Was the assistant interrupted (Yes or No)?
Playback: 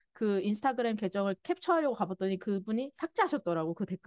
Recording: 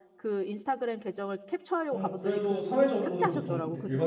Yes